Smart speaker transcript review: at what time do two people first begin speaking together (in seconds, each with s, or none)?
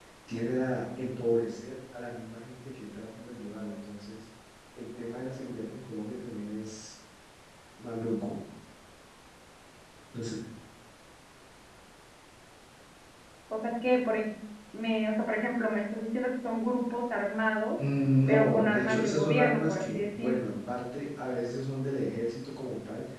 18.3 s